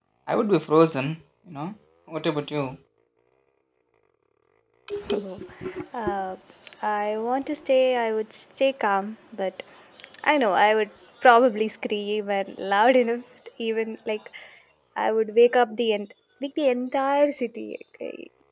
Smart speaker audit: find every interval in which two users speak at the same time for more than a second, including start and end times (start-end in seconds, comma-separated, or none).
none